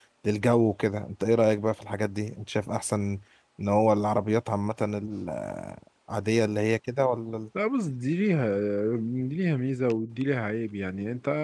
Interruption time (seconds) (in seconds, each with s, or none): none